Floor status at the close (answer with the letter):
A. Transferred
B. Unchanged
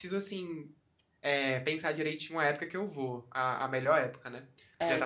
A